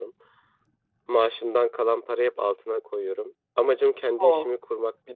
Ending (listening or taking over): listening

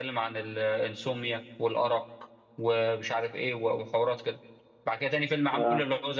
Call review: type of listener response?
listening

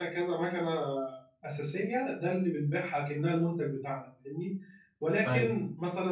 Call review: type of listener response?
listening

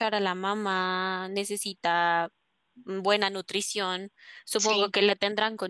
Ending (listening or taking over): listening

